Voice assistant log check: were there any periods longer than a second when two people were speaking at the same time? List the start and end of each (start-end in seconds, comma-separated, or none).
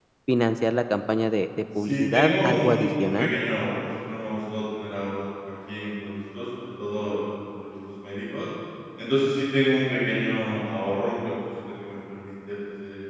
1.8-3.3